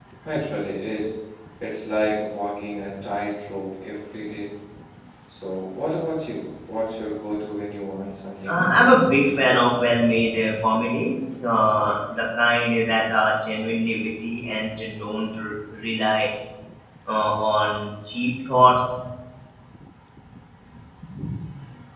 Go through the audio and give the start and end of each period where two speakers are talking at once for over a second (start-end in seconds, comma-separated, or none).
8.4-9.7